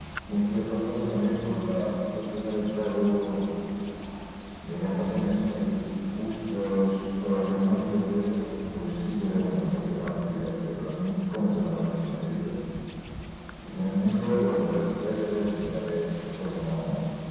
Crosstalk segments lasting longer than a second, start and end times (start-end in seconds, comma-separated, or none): none